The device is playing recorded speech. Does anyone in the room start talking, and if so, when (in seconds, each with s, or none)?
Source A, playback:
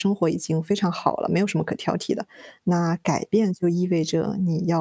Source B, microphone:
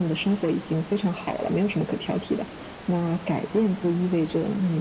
none